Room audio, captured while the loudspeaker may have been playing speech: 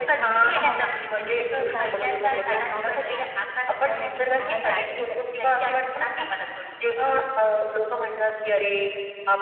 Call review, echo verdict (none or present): present